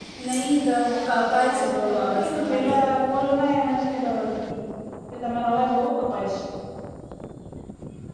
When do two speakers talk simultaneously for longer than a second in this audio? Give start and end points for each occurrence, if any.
1.4-2.7

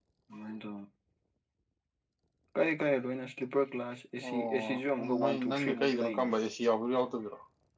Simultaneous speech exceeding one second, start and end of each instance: 4.2-6.3

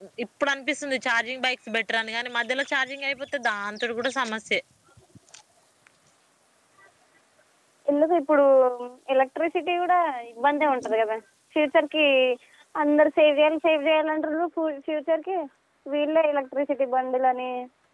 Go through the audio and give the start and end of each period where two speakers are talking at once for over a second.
none

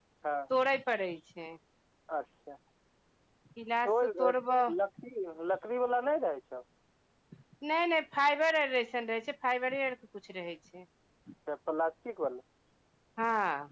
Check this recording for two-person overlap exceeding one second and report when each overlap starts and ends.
none

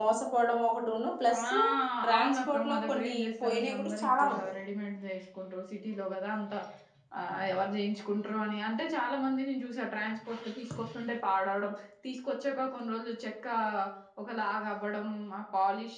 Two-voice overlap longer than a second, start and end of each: 2.1-4.4

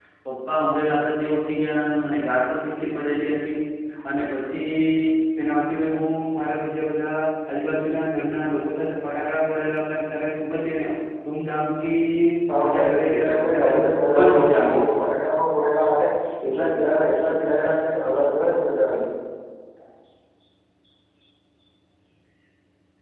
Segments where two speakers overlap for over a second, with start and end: 12.6-14.9

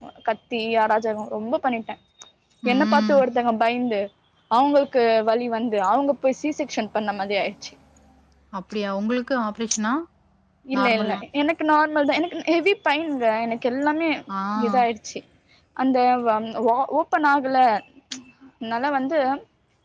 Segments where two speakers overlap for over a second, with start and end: none

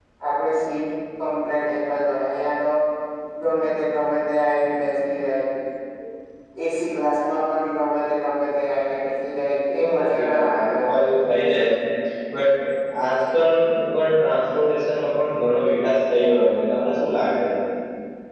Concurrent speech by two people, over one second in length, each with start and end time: 9.9-11.3

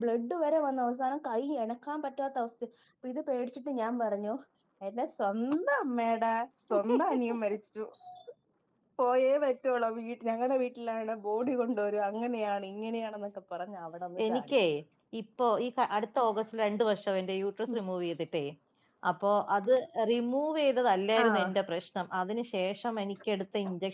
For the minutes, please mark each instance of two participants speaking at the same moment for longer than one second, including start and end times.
none

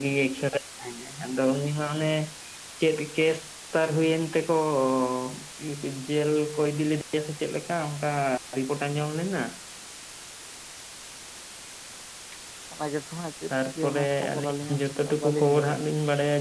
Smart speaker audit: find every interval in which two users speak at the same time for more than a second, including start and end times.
13.5-15.8

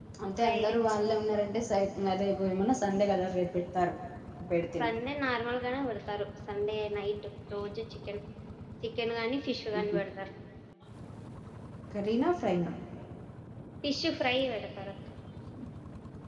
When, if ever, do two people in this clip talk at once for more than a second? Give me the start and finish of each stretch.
none

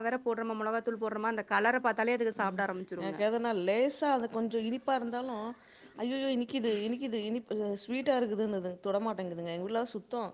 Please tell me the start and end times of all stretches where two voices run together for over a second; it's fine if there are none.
none

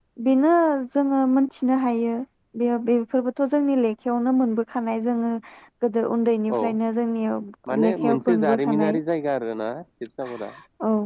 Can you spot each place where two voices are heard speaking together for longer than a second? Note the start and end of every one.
7.7-9.0

